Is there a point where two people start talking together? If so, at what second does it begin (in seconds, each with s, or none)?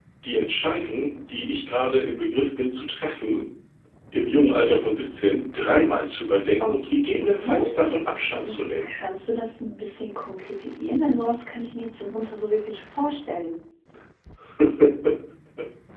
6.6 s